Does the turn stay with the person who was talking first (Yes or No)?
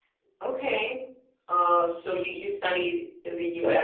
Yes